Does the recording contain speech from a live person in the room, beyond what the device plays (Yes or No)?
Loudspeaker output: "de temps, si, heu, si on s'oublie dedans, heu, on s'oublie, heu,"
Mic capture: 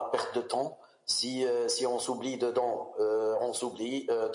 No